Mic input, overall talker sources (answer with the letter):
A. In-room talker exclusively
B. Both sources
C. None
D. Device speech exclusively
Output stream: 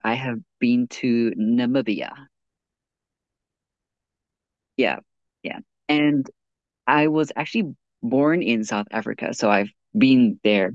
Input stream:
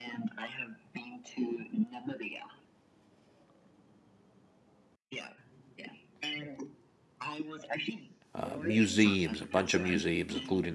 B